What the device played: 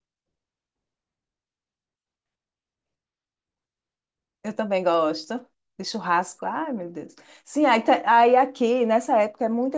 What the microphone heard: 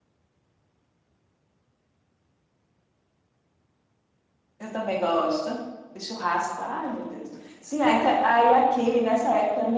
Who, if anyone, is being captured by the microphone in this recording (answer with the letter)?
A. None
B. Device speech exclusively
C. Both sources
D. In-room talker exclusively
B